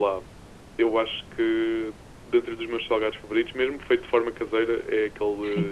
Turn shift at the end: No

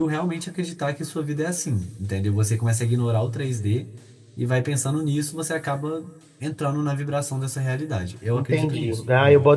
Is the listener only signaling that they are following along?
No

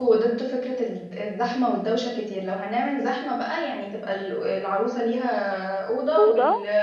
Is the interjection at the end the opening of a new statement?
No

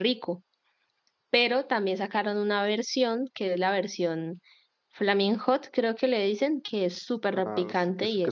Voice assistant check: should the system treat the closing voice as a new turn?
Yes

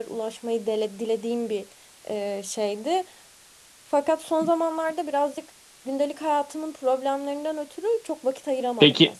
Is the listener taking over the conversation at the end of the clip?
Yes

